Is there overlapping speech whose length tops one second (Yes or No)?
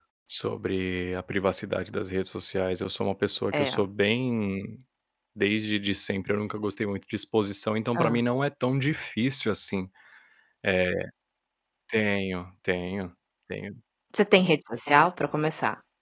No